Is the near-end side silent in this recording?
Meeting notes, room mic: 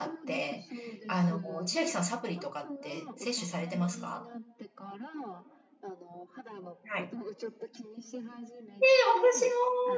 No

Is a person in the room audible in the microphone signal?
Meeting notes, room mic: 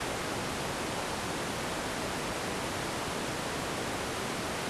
No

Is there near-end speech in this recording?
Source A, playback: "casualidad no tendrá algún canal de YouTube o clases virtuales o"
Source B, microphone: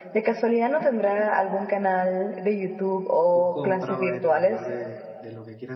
Yes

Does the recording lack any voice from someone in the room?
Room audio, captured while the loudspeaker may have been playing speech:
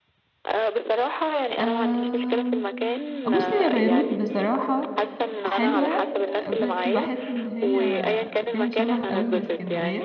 No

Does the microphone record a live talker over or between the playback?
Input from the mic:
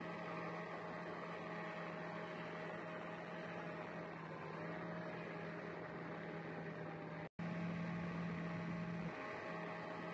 No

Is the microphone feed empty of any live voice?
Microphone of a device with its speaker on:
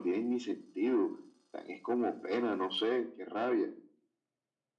Yes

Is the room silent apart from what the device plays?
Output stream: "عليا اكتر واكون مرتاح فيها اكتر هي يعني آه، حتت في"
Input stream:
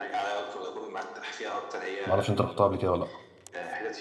No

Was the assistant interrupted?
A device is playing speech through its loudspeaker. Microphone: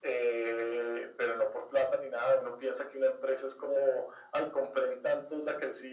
No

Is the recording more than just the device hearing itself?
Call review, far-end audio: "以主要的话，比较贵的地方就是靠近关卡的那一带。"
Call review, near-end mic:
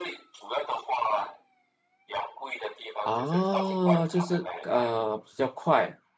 Yes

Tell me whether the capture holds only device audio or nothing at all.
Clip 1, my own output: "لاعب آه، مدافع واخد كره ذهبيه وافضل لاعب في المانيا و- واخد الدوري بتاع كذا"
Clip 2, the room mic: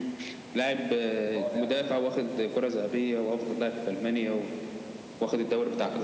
No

